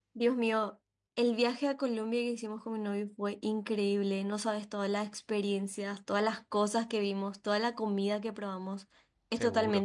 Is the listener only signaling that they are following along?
Yes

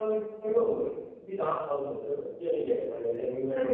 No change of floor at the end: Yes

